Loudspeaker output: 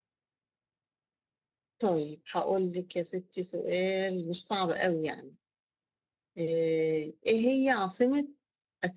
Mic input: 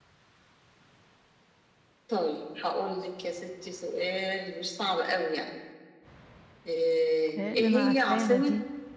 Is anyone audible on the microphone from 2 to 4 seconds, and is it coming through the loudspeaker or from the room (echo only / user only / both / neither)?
echo only